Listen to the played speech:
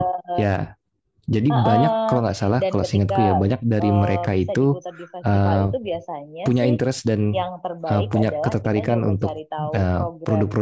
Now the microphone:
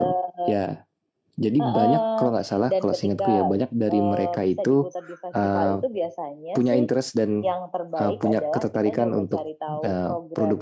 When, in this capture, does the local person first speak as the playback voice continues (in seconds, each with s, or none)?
none